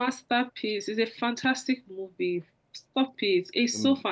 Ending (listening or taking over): listening